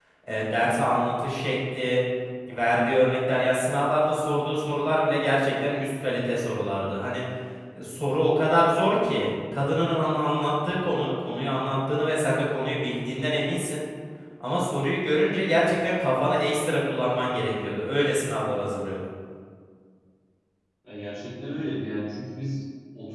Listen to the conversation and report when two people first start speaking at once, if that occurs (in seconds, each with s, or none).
none